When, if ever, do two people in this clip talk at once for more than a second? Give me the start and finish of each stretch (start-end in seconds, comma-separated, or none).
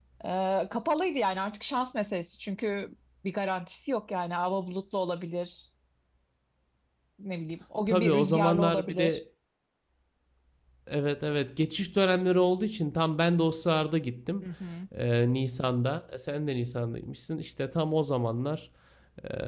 7.9-9.2